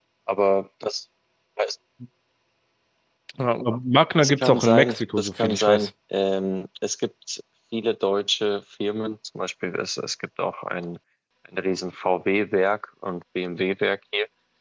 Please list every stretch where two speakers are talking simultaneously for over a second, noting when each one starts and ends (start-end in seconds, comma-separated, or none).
4.2-5.9